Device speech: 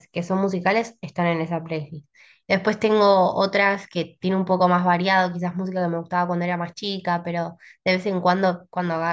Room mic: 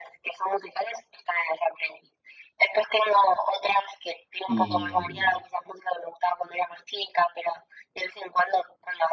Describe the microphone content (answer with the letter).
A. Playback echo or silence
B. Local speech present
B